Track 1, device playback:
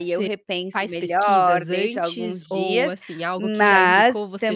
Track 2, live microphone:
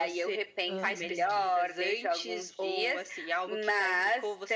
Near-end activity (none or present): present